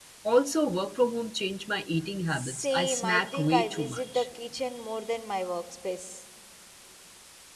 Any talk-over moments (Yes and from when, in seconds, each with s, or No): Yes, from 2.3 s